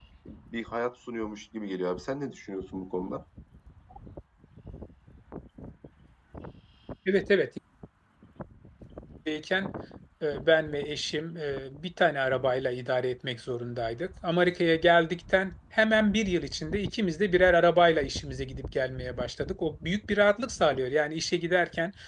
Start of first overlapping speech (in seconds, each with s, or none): none